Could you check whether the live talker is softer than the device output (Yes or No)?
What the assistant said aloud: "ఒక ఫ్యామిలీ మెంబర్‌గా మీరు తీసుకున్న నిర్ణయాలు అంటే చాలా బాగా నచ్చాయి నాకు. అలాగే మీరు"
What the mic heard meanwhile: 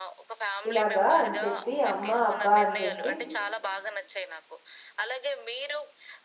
No